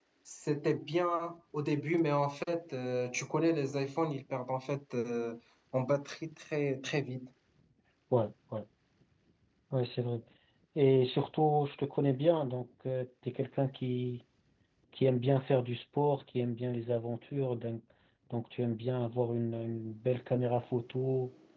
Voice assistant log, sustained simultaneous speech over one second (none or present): none